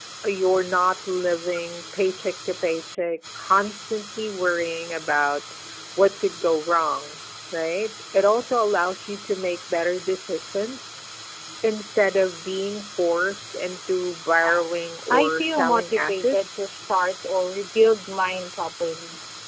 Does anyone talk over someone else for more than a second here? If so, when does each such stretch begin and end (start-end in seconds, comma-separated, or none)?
15.1-16.6